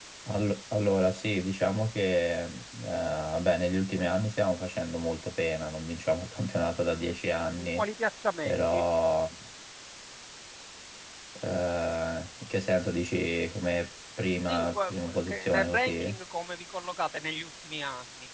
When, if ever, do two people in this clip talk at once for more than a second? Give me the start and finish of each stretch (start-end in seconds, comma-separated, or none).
14.4-16.1